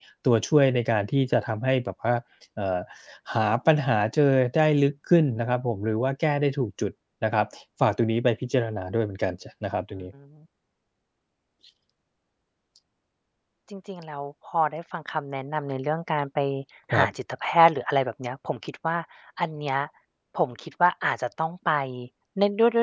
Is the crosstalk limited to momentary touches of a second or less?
Yes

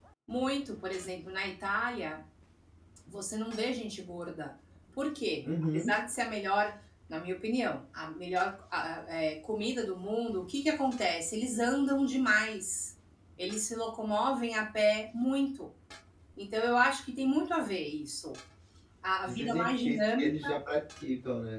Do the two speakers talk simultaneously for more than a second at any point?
Yes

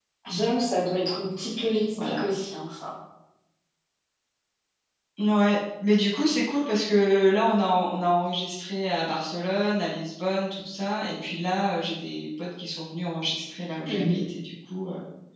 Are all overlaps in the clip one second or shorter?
Yes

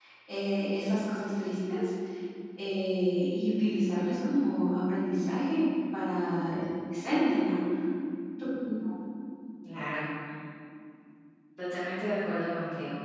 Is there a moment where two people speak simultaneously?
No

